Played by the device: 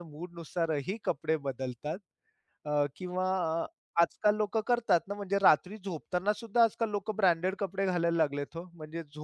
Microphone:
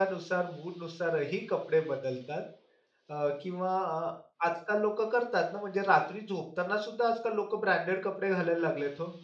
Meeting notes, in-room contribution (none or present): none